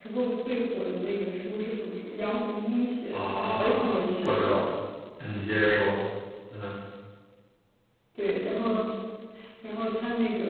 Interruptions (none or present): present